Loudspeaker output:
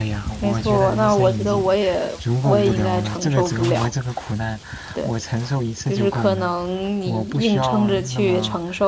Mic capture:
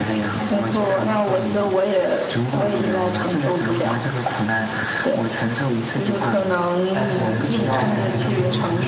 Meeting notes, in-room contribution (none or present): present